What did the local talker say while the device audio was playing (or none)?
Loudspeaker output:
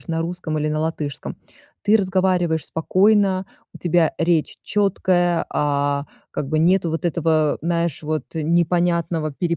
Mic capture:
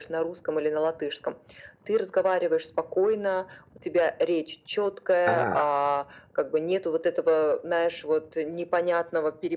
а,